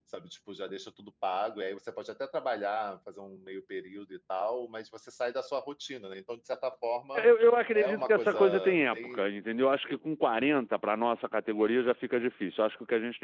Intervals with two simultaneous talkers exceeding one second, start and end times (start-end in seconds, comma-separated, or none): 7.7-9.2